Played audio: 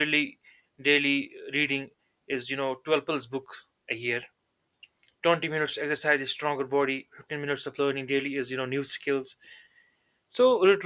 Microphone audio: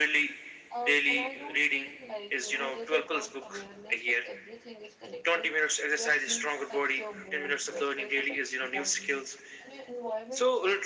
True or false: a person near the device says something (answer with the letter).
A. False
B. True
B